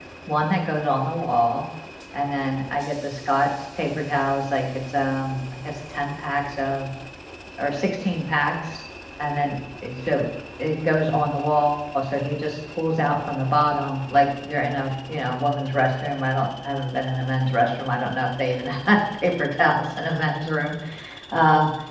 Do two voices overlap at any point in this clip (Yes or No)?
No